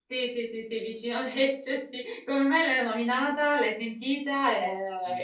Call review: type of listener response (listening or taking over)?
taking over